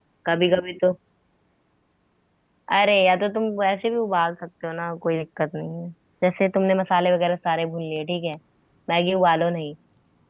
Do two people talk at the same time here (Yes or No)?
No